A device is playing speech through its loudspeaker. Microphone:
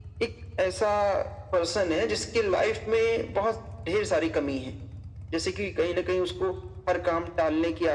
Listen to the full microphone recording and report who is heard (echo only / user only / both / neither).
echo only